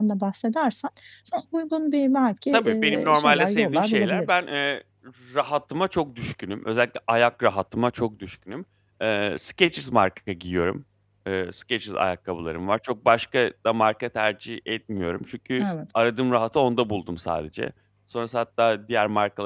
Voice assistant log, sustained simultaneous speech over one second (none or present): present